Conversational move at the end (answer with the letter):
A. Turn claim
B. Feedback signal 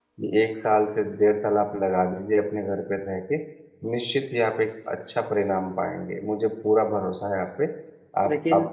B